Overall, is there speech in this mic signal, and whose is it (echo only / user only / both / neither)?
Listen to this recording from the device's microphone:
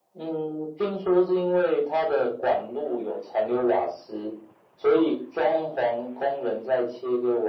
echo only